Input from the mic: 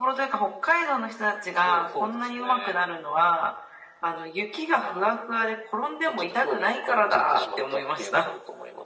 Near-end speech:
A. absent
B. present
A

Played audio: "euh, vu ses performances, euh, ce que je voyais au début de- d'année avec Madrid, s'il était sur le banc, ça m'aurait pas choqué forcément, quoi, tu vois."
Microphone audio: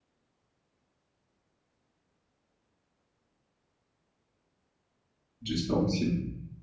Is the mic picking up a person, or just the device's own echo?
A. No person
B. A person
B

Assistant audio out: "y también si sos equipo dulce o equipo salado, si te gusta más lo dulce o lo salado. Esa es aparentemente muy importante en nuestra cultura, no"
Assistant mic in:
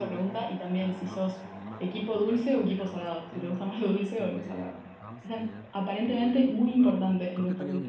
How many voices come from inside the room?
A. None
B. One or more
B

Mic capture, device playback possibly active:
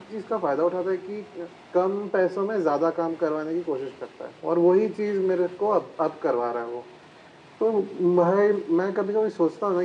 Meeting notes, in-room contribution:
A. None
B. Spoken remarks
A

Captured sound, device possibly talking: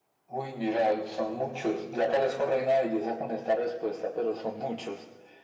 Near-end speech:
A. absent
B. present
A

